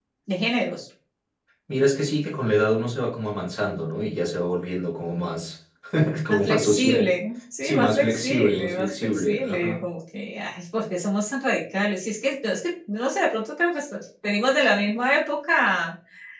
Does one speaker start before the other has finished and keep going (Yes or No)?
Yes